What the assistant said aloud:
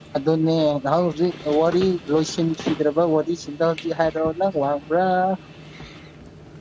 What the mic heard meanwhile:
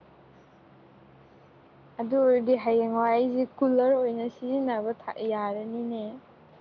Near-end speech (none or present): present